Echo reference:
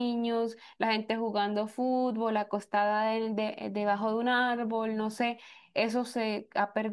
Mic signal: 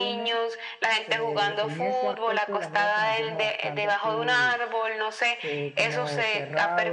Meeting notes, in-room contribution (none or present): present